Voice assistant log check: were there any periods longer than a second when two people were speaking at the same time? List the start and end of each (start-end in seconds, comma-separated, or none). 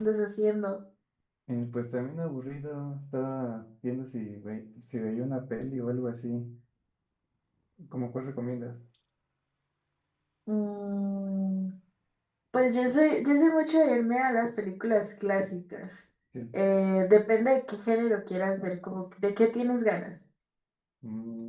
none